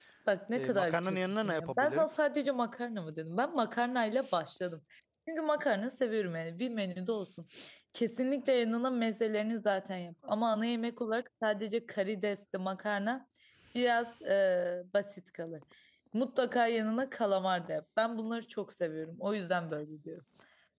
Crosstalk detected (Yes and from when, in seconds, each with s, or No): Yes, from 0.6 s